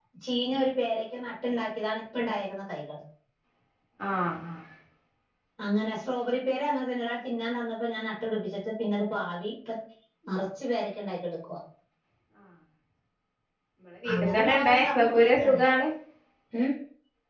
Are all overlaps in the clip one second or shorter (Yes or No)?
No